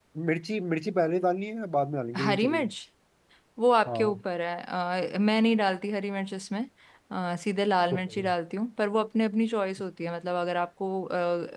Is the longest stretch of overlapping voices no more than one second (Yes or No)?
Yes